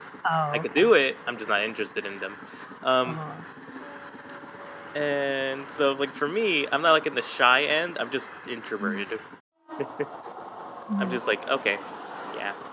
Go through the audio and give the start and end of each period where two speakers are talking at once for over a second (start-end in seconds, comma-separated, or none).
none